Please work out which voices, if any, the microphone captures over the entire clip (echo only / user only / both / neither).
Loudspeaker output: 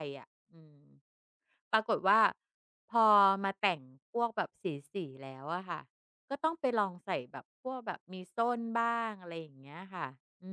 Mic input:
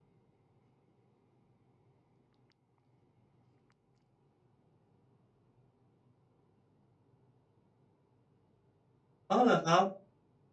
user only